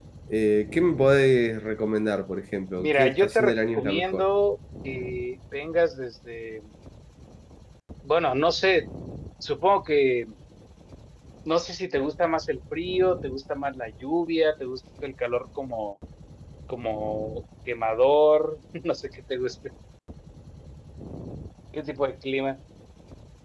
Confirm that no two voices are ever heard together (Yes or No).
No